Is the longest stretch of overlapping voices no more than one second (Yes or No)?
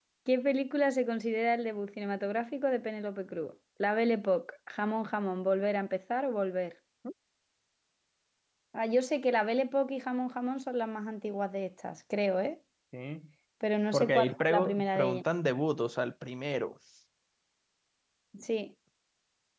No